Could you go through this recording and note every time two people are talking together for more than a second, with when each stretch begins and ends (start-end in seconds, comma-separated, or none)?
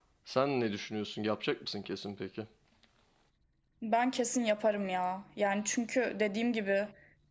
none